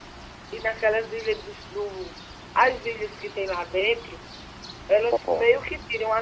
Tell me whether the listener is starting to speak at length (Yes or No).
No